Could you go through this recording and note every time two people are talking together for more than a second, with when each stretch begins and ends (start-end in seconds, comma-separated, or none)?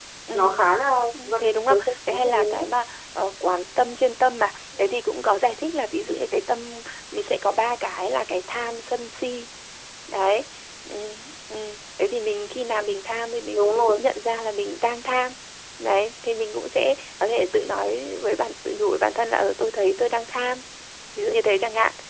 1.4-2.6